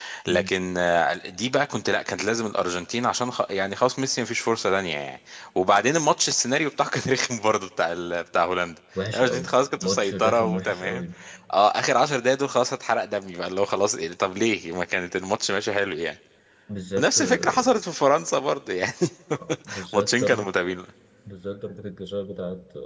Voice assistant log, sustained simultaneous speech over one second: present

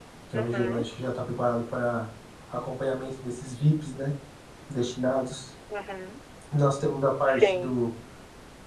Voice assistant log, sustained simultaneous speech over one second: none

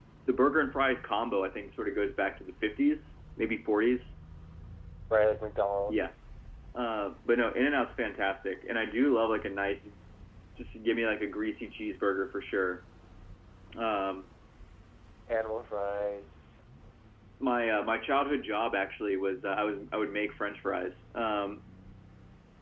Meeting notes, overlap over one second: none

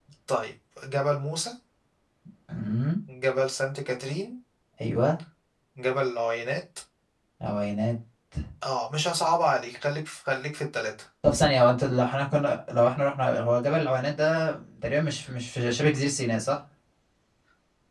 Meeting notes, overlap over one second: none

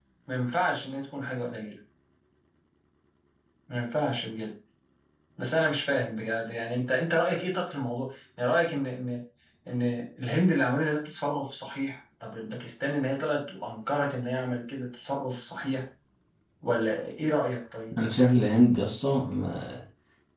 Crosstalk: none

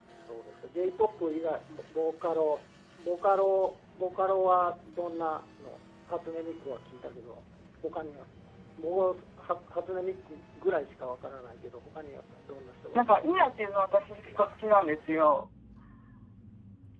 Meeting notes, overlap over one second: none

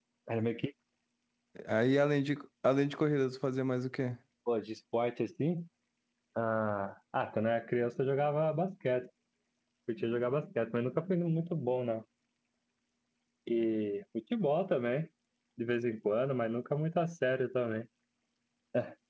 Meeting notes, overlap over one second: none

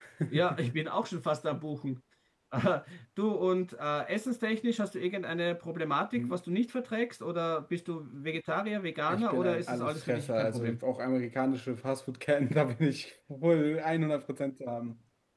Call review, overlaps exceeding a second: present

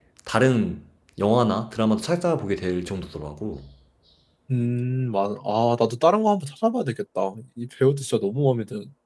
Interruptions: none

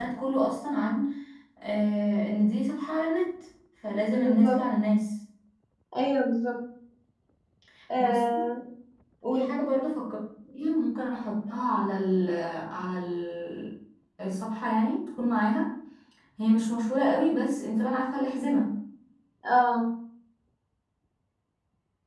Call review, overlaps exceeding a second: none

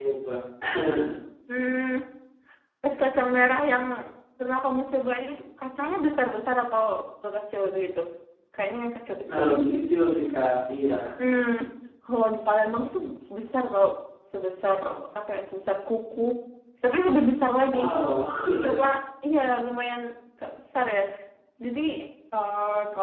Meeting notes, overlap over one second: none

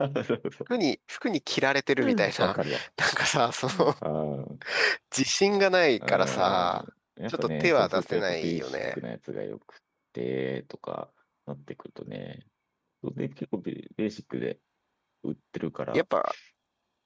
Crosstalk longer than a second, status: present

